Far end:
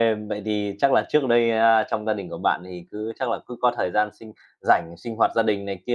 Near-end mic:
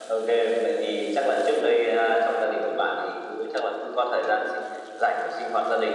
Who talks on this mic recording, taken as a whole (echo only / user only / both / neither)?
echo only